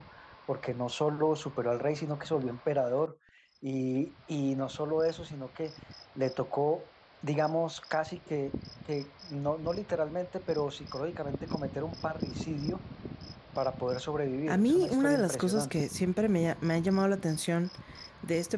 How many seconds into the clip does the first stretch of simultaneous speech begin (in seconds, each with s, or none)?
14.5 s